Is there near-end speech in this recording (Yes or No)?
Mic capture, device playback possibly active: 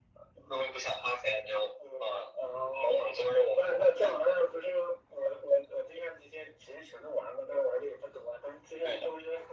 No